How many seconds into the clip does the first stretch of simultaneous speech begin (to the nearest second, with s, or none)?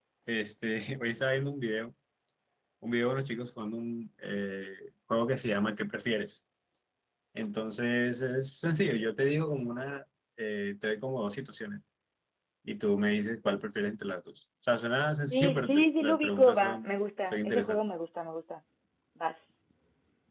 15 s